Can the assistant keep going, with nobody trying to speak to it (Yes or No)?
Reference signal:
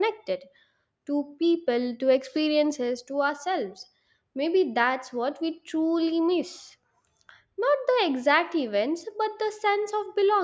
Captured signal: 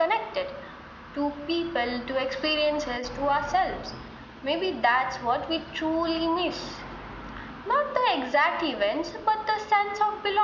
Yes